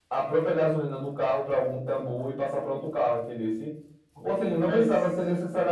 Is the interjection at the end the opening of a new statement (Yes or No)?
No